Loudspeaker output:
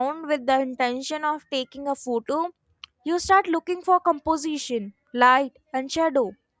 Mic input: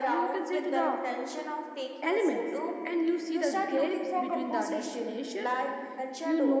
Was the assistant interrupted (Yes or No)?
Yes